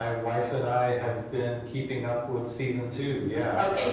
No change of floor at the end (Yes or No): No